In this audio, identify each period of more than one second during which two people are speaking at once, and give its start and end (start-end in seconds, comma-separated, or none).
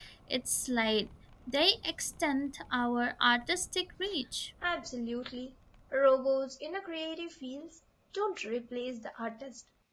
none